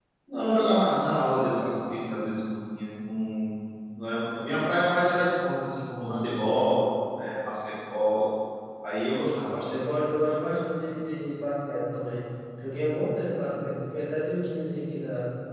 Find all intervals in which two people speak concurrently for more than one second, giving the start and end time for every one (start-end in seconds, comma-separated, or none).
none